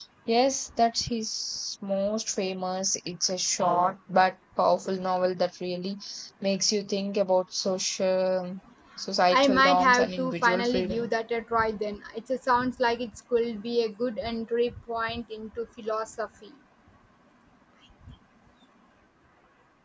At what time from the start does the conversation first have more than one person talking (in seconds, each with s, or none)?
9.3 s